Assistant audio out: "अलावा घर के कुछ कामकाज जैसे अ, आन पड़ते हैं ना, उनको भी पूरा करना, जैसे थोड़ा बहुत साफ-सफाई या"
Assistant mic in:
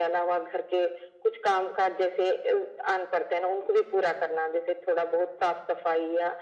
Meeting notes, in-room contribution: none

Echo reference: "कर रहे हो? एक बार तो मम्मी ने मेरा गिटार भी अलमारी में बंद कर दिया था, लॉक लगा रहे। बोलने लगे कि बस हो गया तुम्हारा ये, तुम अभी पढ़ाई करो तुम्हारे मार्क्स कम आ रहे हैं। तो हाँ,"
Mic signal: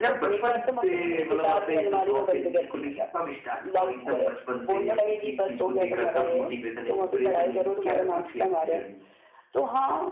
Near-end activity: present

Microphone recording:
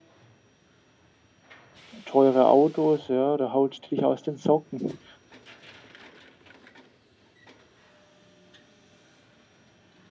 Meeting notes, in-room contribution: present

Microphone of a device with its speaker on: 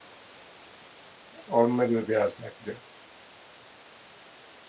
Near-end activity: present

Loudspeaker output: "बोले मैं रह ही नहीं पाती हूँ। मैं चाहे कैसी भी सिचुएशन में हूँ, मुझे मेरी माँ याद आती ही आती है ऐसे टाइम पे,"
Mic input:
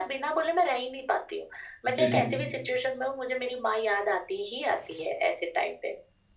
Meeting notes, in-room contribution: present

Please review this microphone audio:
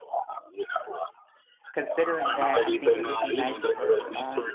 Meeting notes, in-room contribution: present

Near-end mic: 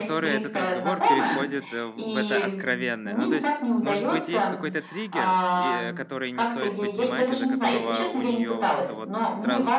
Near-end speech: present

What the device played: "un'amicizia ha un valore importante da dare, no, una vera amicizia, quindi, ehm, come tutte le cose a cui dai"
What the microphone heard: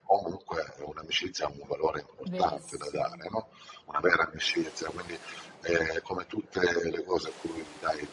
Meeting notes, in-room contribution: present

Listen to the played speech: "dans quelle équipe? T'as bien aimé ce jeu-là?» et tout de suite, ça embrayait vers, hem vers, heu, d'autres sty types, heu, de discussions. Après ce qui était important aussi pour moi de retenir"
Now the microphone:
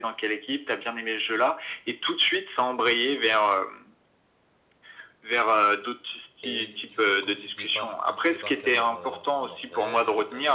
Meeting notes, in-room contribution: present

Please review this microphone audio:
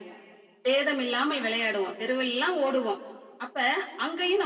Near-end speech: none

